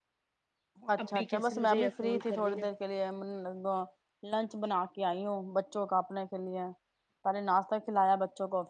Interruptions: present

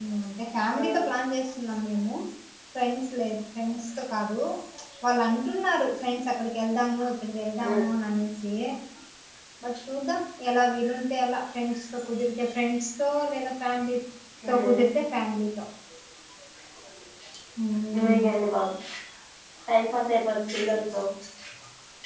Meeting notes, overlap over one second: none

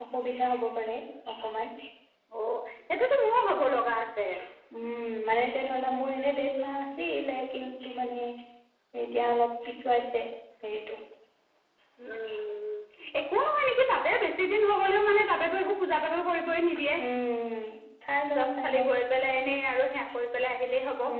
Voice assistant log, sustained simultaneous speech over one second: none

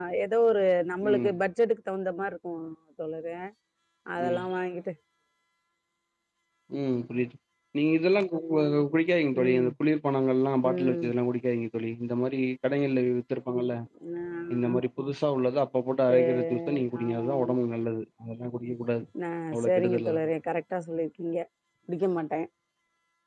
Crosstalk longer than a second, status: present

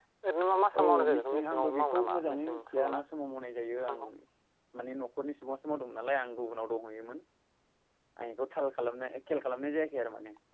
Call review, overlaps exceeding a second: present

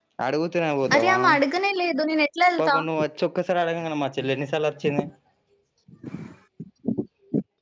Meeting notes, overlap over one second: none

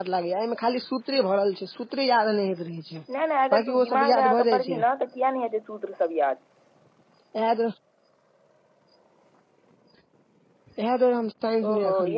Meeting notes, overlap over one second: present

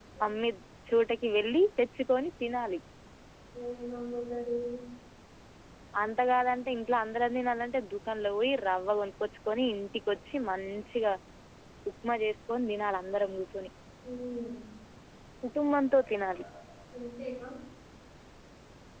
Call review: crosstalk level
none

